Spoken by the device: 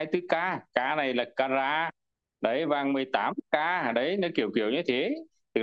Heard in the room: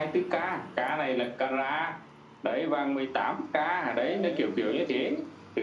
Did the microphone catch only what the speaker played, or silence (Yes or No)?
No